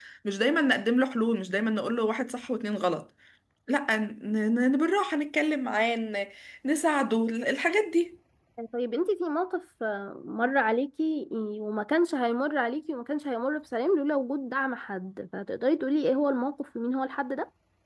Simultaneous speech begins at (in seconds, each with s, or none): none